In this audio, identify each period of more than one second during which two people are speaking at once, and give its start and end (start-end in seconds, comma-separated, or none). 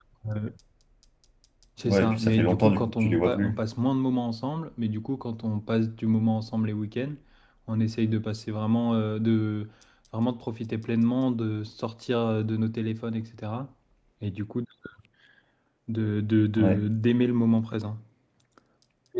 1.9-3.6